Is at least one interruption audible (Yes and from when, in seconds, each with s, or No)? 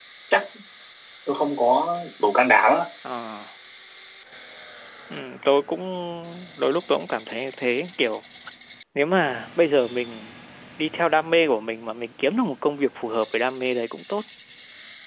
No